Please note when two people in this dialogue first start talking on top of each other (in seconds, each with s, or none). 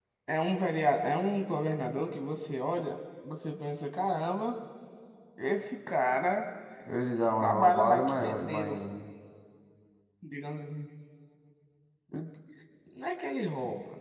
7.4 s